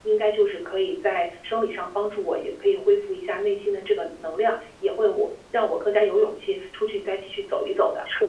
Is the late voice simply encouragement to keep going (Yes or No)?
No